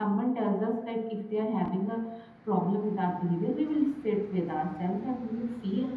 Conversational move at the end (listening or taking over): listening